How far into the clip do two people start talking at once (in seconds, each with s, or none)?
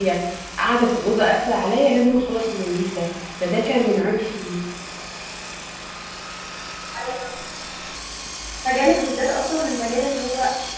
none